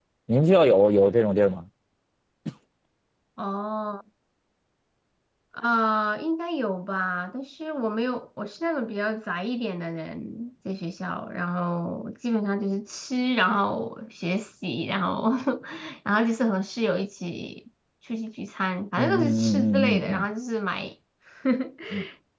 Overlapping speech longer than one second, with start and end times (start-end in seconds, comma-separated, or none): 19.0-20.2